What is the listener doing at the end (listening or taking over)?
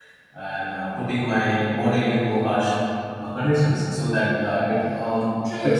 taking over